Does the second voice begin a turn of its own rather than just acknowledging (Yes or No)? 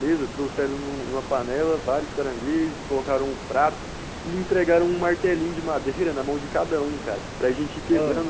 No